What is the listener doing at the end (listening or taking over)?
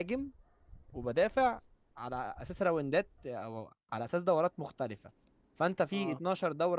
listening